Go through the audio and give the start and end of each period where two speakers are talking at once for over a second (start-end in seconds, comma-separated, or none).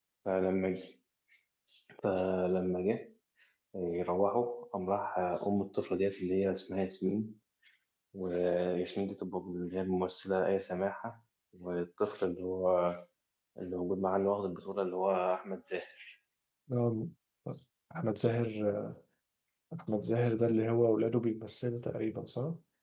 none